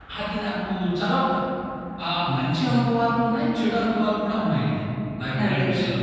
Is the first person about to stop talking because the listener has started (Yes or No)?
Yes